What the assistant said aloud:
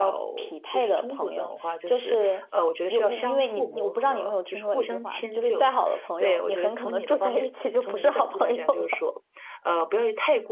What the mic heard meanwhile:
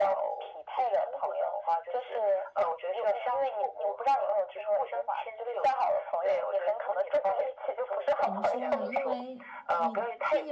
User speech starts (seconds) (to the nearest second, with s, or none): 8 s